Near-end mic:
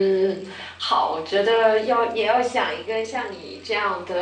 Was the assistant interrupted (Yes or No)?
No